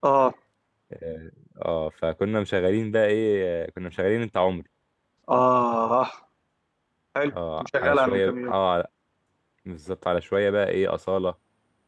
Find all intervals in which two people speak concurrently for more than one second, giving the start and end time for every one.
7.3-8.5

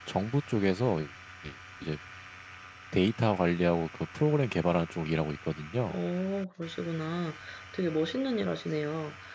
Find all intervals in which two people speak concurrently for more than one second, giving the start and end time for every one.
none

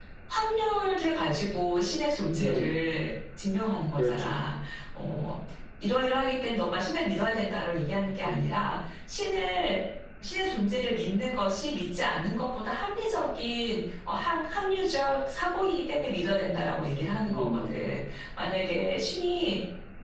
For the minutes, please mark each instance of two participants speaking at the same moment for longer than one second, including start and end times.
none

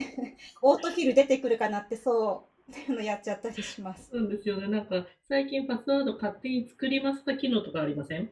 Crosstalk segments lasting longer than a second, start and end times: none

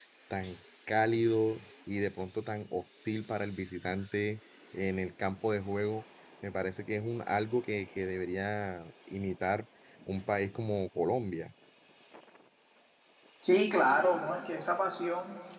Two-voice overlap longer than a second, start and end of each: none

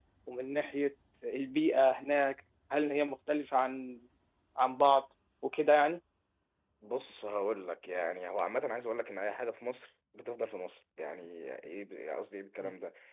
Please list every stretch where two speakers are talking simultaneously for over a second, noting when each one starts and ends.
none

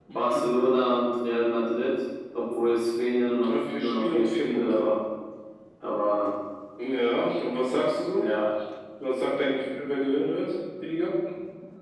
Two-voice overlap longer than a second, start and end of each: 3.4-4.8

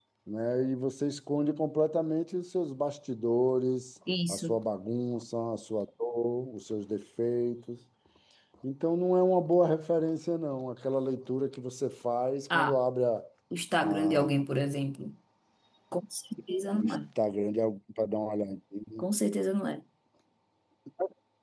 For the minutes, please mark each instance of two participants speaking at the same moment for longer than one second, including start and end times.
none

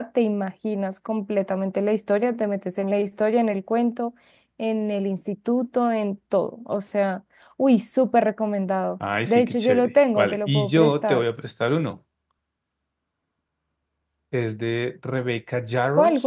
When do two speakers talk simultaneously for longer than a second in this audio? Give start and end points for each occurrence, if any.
9.3-11.2

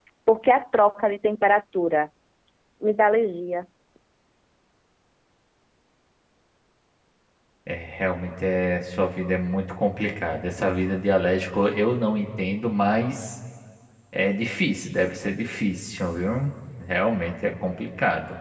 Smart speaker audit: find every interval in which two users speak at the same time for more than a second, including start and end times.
none

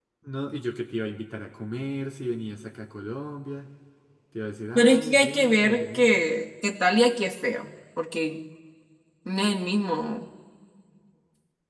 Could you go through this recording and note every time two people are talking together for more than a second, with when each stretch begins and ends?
4.8-6.1

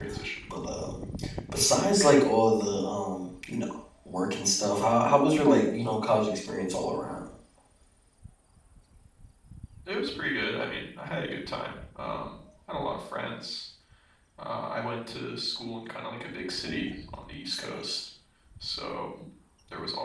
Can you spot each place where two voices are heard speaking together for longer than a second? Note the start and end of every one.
none

